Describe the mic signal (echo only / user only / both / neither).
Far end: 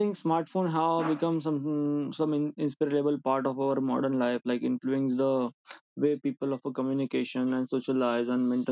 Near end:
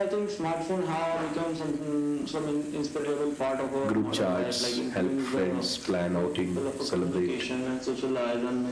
both